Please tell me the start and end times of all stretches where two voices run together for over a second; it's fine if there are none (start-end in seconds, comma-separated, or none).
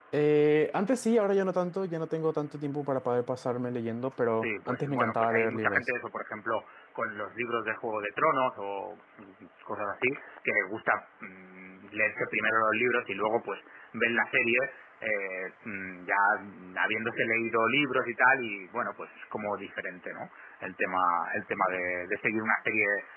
4.4-5.8